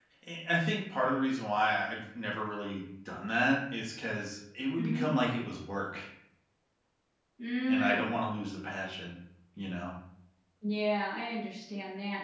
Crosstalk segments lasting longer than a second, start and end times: none

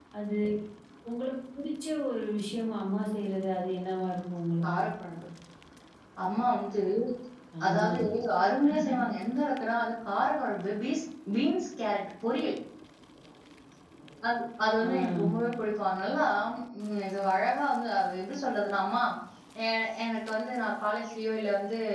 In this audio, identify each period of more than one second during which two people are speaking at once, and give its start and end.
none

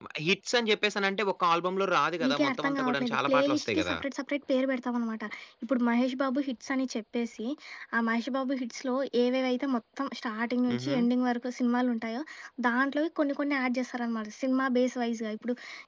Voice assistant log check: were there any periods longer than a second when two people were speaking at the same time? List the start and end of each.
2.3-4.0

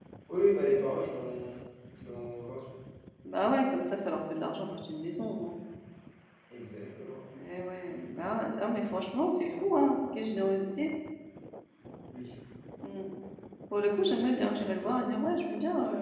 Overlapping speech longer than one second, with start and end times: none

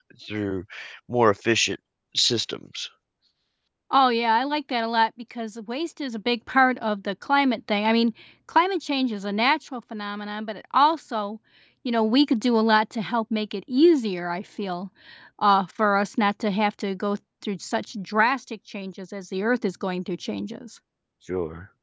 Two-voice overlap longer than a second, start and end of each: none

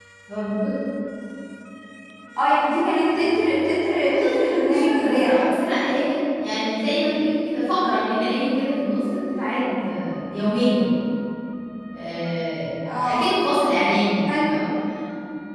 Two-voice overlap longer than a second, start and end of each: 4.1-5.4

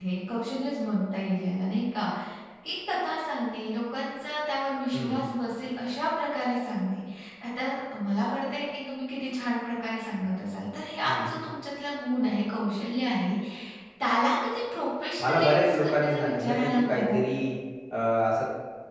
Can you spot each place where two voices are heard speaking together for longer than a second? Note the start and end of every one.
15.2-17.2

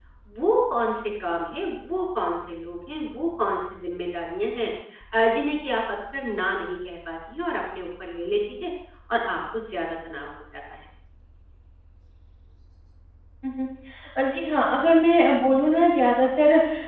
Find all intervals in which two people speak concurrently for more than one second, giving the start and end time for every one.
none

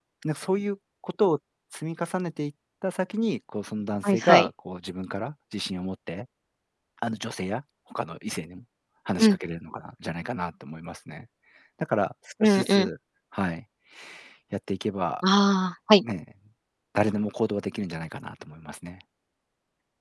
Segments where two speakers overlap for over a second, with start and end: none

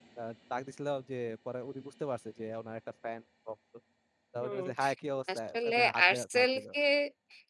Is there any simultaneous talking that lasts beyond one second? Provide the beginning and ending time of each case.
5.3-6.6

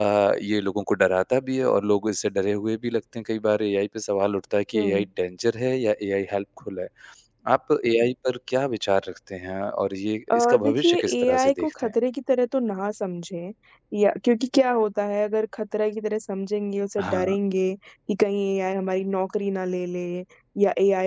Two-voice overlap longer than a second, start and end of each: 10.3-11.9

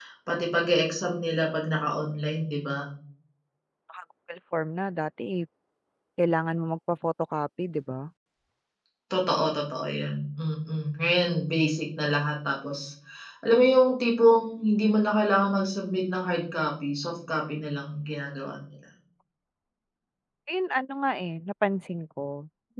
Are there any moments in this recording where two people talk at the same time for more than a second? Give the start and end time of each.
none

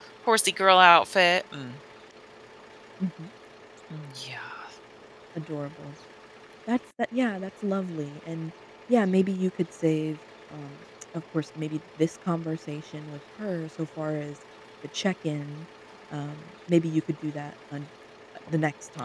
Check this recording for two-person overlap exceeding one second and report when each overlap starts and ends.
none

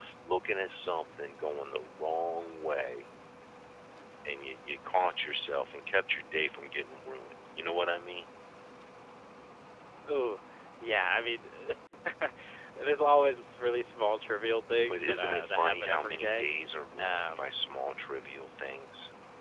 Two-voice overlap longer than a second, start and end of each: 14.9-16.5

